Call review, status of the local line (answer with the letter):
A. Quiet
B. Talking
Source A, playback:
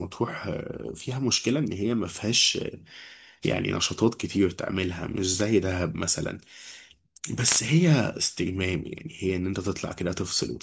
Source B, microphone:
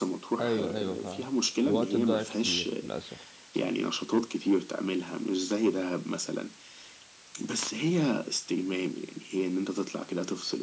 B